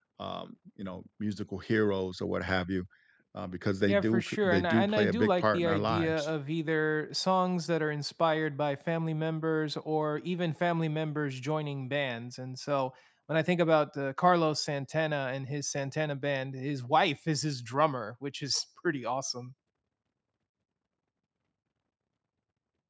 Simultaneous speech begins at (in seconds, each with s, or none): 3.9 s